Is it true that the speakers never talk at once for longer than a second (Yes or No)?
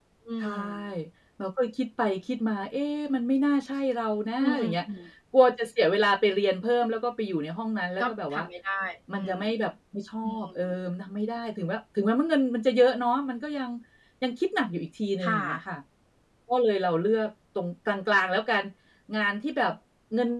Yes